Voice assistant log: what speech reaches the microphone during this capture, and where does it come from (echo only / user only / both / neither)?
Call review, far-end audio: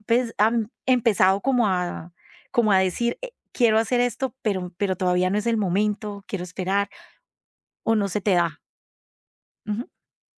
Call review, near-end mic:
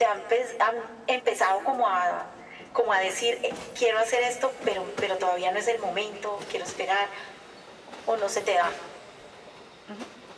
echo only